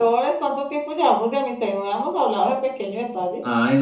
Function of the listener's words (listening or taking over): taking over